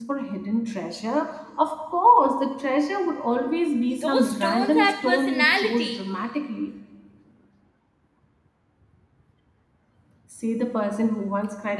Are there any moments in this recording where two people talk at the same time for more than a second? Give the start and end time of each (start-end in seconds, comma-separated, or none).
4.0-6.0